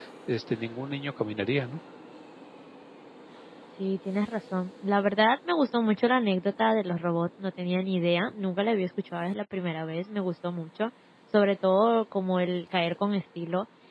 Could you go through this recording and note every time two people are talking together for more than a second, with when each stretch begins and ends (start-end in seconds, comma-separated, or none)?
none